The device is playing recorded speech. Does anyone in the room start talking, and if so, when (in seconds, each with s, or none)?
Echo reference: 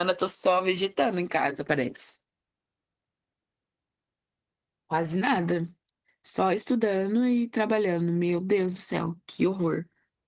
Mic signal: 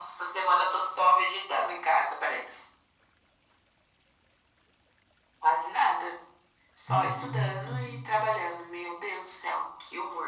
6.8 s